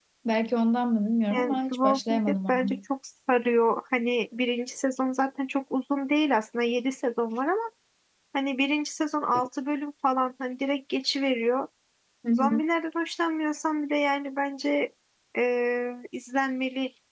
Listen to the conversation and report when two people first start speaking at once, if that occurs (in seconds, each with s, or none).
1.3 s